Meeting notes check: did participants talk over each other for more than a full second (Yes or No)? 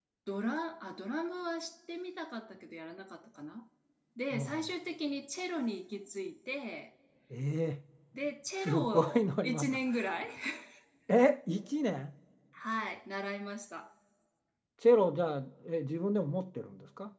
Yes